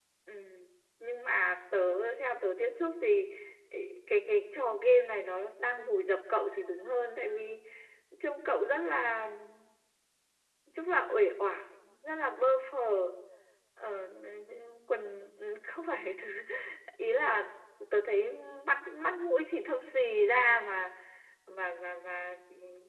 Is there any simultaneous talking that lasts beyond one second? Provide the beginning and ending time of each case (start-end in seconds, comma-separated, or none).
none